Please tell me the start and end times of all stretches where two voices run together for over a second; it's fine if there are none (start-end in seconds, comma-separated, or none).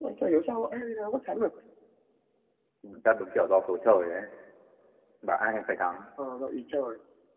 none